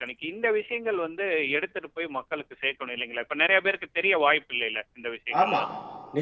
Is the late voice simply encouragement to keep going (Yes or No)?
No